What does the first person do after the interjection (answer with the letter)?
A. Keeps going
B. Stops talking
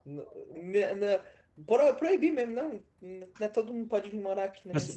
B